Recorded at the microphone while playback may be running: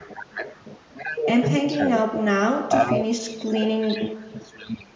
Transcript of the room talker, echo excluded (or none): I'm hanging up now to finish cleaning